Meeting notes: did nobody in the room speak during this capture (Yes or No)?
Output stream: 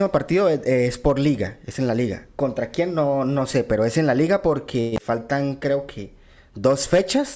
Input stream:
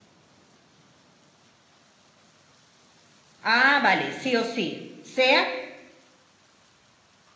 No